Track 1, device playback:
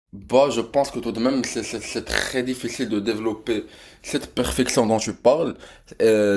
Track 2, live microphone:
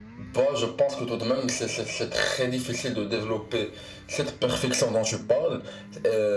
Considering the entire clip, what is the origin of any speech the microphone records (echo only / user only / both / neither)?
echo only